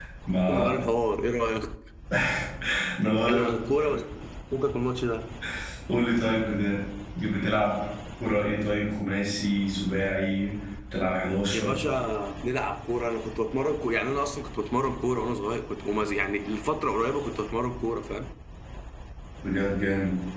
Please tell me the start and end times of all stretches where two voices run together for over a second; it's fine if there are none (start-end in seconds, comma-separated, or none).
none